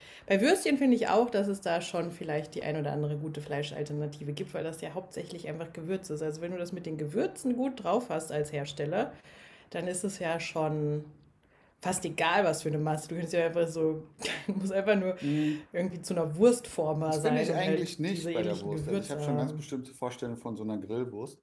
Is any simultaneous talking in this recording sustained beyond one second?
Yes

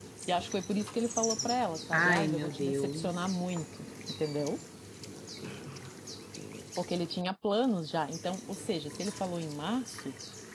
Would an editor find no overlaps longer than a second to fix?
No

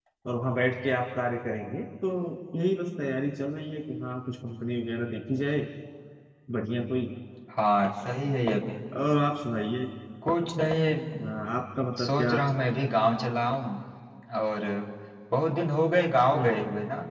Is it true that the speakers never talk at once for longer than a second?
Yes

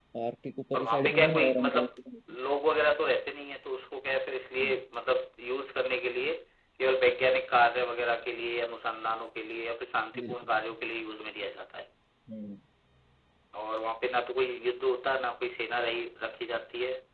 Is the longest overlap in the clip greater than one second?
Yes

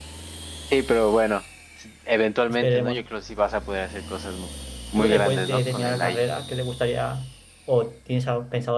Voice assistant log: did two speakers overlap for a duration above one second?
Yes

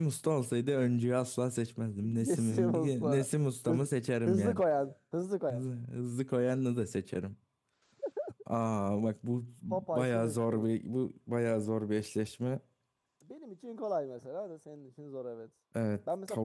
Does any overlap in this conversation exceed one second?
Yes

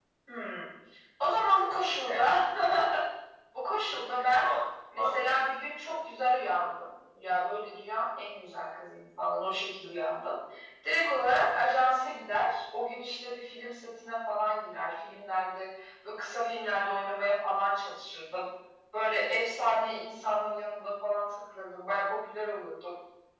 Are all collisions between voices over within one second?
Yes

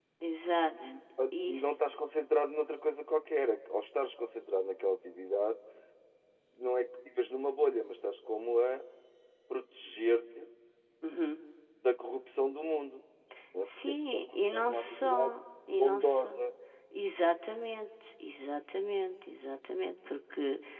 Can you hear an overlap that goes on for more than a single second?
Yes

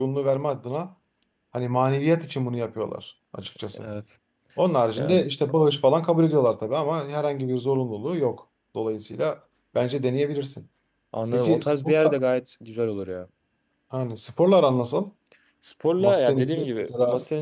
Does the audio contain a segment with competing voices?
Yes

